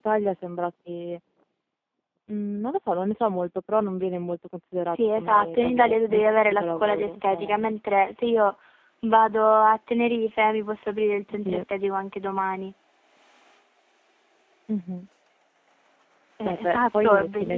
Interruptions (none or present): present